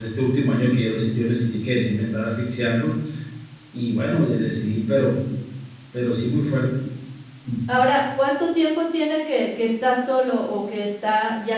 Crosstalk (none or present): none